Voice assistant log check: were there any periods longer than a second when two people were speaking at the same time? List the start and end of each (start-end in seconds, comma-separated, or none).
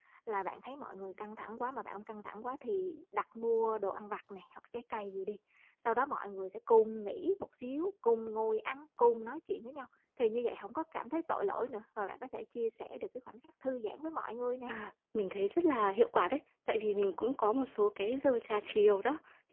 none